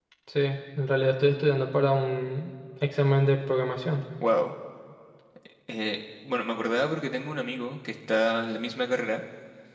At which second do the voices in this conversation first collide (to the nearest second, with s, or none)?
none